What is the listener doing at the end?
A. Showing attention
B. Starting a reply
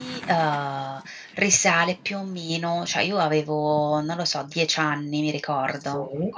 A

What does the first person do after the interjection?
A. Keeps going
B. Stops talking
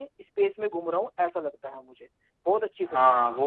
B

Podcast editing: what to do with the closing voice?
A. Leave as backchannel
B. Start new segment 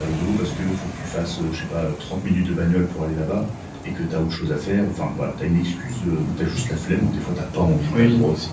B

